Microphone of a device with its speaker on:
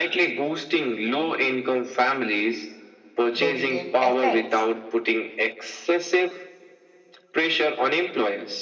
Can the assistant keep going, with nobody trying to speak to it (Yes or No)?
No